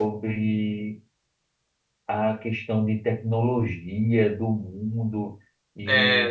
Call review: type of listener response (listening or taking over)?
listening